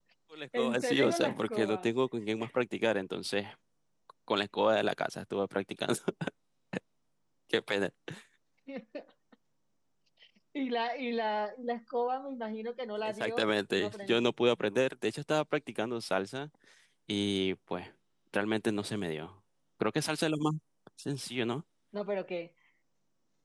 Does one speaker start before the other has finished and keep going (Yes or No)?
Yes